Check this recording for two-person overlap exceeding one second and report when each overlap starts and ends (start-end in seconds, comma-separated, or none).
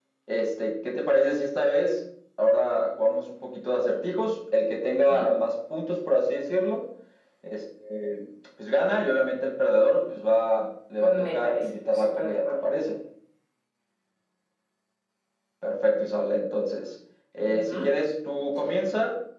11.0-12.7